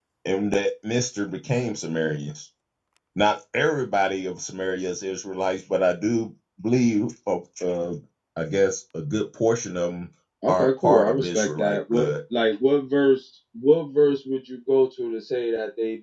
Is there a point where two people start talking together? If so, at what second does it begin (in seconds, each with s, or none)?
10.5 s